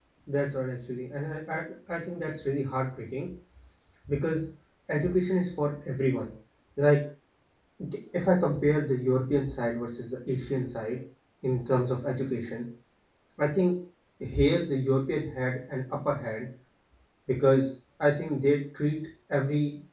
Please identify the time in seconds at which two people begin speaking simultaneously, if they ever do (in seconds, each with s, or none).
none